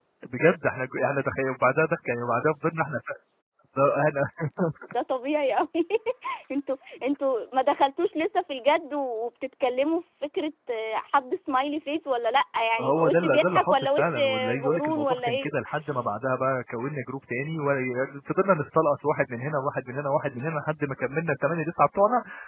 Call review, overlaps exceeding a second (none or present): present